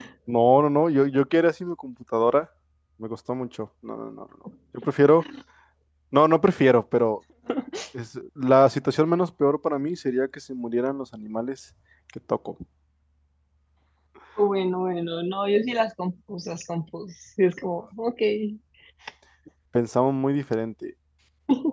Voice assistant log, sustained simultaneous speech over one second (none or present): none